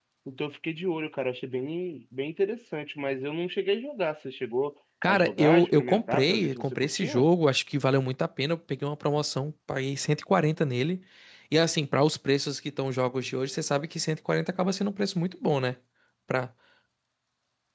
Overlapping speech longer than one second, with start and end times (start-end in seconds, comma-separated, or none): 5.1-7.2